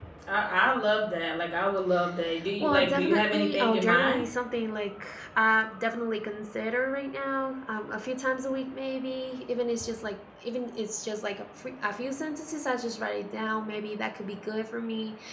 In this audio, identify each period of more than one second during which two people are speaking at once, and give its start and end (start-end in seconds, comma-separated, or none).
2.6-4.2